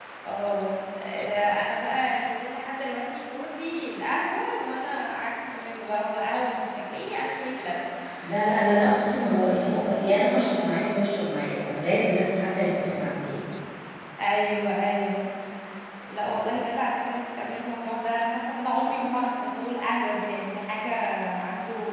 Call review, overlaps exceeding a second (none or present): none